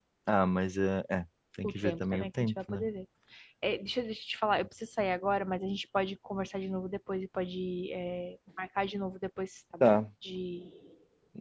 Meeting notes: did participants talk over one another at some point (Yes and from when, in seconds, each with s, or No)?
Yes, from 1.6 s